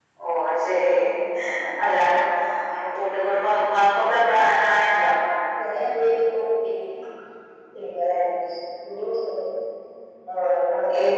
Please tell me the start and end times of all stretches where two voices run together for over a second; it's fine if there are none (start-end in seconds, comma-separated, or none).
none